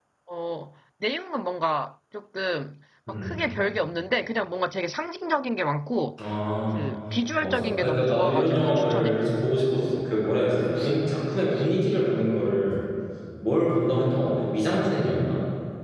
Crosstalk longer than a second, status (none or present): present